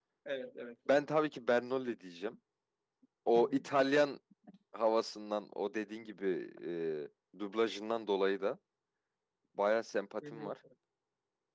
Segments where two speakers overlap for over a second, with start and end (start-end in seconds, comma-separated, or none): none